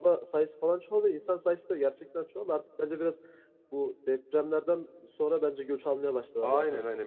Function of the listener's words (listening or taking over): taking over